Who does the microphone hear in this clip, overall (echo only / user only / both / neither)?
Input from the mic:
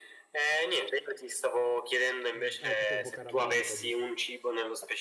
both